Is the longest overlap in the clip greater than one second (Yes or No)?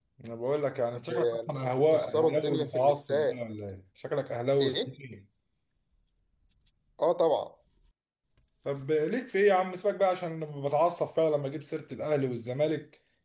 Yes